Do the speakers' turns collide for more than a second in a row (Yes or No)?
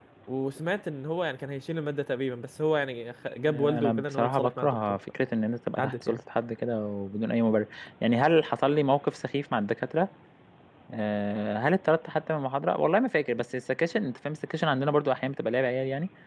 Yes